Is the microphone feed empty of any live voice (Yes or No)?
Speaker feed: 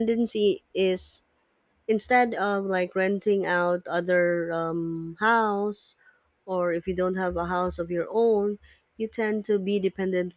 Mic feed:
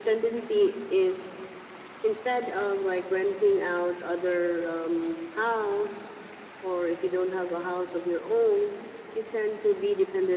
Yes